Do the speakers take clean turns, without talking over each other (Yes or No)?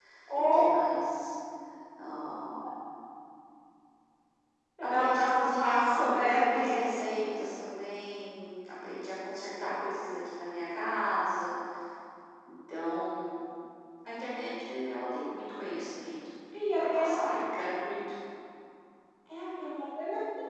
No